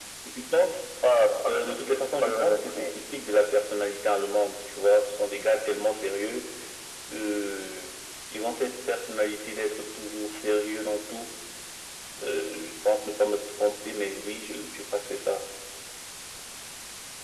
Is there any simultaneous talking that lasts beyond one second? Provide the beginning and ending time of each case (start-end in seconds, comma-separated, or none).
1.5-3.0